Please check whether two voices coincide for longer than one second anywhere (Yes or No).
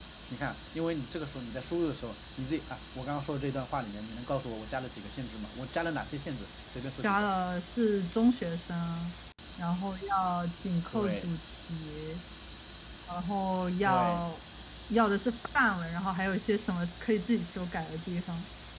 No